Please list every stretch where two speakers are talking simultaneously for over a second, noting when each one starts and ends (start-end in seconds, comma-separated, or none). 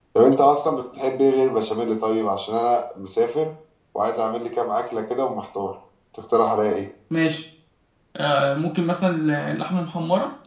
none